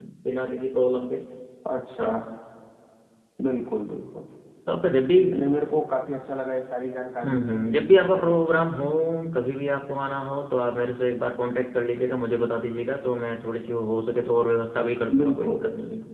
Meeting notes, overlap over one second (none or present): none